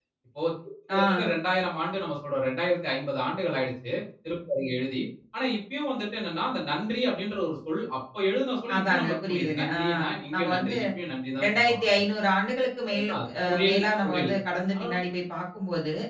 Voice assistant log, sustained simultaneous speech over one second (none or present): present